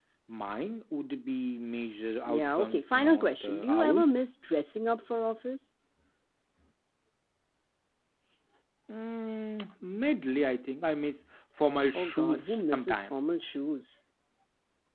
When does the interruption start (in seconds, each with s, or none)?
2.3 s